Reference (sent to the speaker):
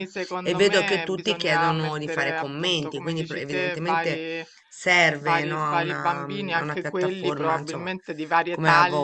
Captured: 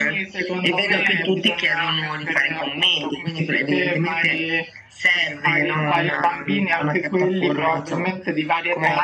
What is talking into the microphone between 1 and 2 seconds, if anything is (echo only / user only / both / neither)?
echo only